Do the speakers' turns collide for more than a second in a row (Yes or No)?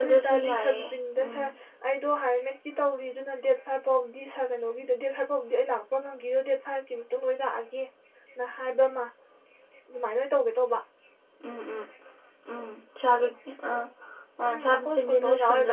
Yes